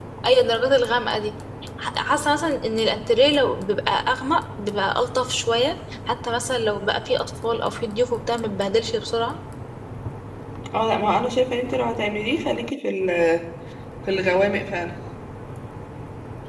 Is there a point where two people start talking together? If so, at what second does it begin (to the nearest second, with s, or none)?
none